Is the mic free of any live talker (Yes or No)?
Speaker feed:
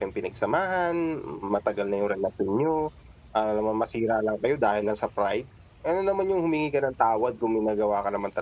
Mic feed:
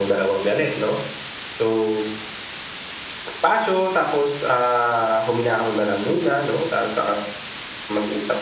No